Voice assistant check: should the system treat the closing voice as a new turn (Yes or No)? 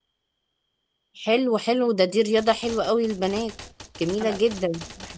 Yes